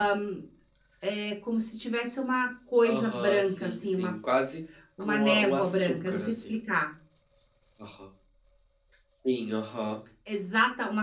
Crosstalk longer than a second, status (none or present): present